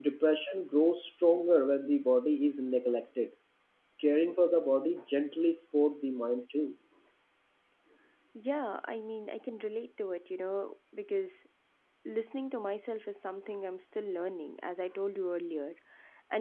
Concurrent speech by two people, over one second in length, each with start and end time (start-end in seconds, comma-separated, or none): none